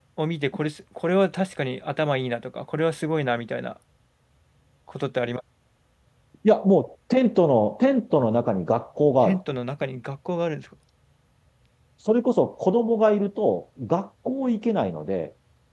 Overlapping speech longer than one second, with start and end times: none

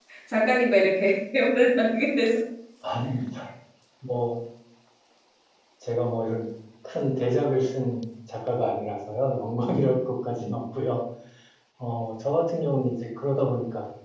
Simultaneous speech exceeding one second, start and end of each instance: none

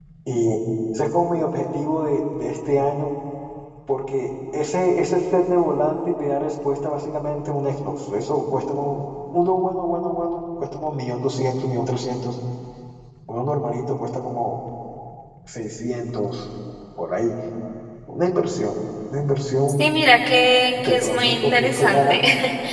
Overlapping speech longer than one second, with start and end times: 20.8-22.2

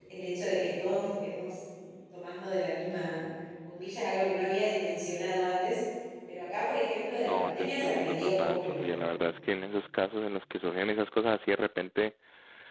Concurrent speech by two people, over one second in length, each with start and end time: 7.2-9.0

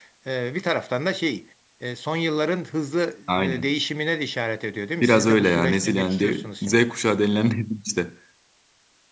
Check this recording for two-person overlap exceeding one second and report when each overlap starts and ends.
5.0-6.9

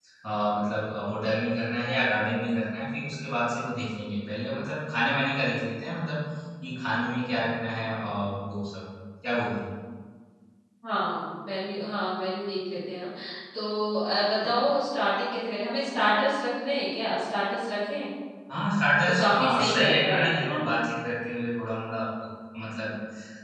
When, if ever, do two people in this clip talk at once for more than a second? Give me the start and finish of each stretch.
19.2-20.6

